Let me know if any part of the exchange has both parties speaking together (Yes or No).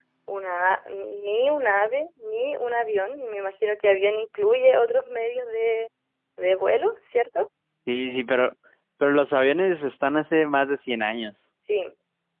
No